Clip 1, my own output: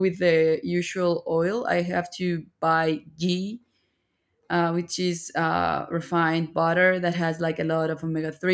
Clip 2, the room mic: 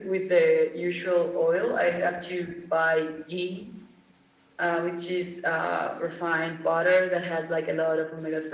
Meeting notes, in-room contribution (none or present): none